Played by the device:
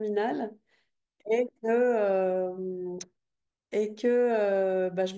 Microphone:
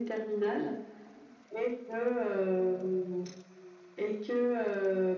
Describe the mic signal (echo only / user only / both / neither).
echo only